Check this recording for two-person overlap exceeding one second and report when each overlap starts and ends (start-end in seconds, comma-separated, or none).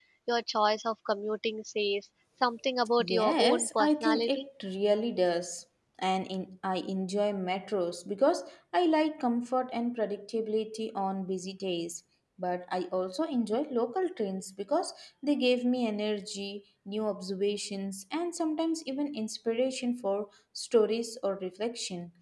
3.0-4.5